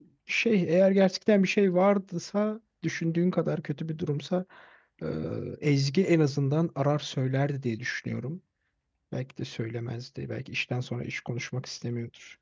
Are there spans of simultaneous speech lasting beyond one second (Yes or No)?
No